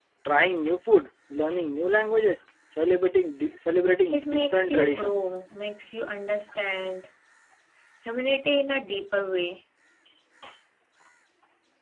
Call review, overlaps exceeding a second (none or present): present